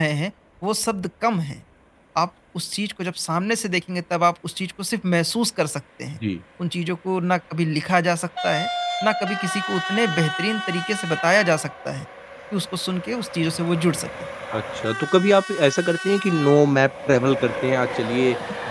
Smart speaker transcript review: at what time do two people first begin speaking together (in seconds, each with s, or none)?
none